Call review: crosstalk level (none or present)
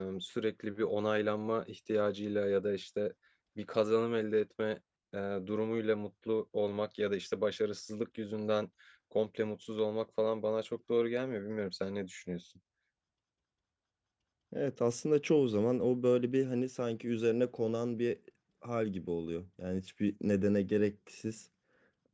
none